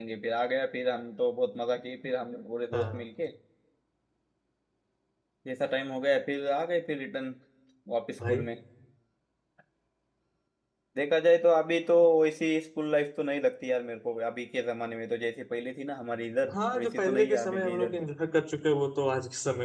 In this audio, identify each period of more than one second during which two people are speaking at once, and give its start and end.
16.5-18.0

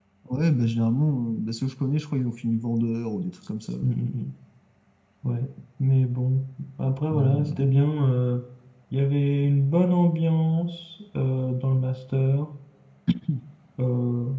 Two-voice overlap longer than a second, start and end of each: none

